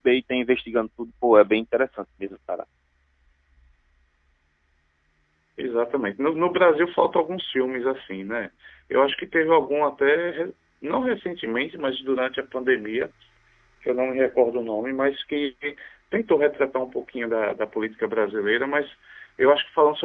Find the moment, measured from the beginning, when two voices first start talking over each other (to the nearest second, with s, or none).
none